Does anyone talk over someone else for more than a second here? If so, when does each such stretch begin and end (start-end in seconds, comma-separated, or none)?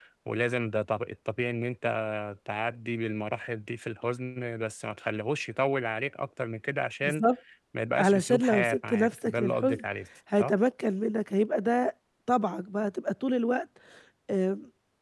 8.0-9.8